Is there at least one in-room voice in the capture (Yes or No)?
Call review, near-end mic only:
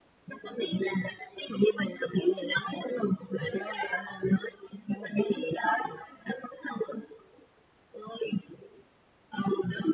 No